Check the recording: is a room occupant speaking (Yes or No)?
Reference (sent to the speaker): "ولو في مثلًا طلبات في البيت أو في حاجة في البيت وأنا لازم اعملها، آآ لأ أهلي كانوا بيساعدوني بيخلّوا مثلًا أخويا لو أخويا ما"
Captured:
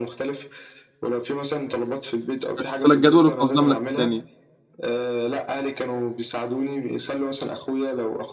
Yes